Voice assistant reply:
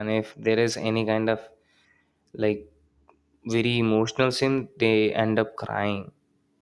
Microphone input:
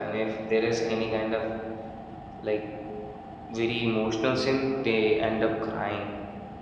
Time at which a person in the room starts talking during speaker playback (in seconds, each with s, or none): none